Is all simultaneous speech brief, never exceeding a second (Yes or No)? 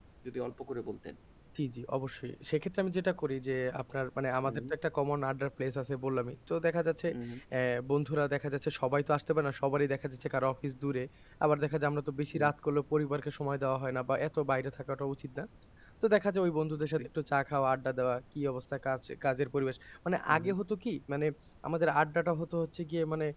Yes